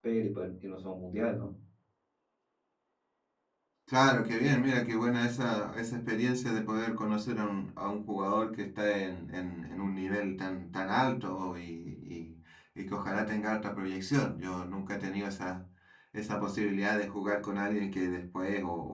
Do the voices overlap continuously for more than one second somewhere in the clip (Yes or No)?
No